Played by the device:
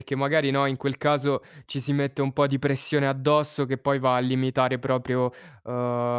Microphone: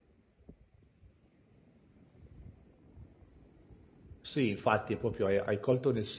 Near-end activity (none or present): present